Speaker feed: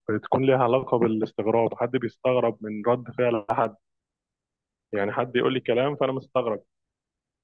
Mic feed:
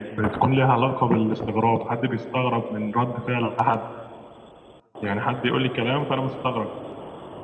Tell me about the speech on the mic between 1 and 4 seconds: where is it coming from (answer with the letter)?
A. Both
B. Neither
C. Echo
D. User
C